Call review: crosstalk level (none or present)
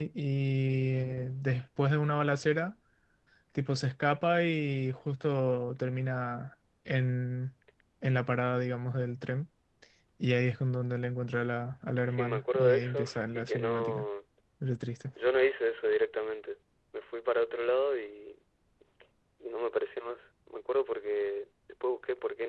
present